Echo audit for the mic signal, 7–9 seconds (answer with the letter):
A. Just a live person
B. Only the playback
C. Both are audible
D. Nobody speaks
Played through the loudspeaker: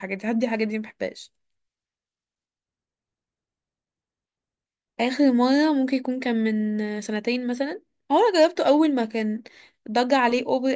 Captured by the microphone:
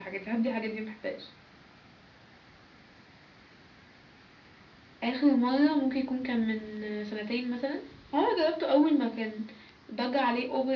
B